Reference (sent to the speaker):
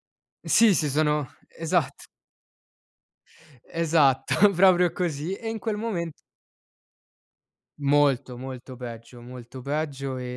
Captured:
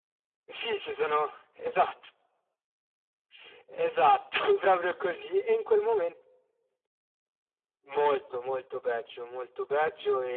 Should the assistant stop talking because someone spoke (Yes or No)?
No